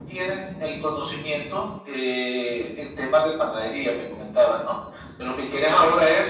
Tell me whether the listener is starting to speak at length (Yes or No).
No